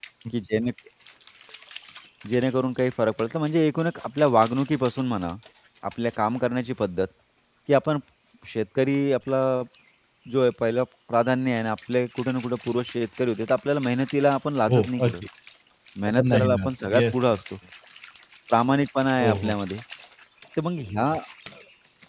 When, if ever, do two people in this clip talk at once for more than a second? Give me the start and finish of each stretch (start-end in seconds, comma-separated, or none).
16.1-17.4